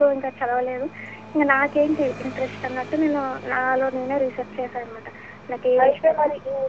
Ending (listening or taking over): taking over